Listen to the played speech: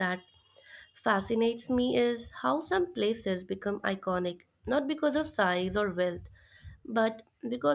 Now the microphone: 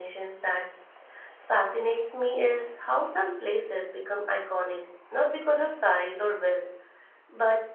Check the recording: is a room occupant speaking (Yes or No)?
No